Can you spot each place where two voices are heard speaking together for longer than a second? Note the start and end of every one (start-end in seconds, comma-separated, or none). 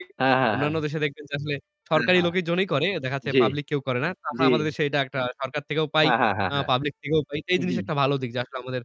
none